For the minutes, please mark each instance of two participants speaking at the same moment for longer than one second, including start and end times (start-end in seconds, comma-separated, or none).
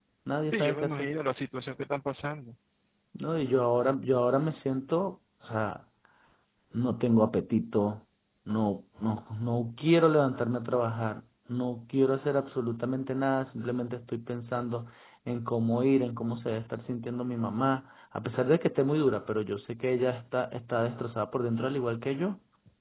none